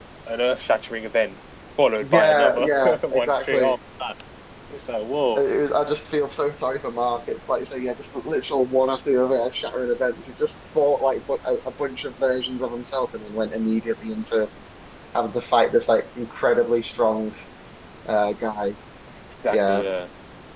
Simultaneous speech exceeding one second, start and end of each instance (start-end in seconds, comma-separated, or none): 2.0-3.8